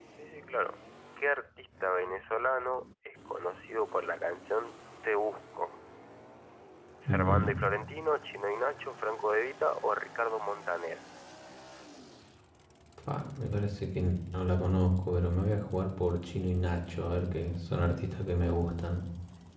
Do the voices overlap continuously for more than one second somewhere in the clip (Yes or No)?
No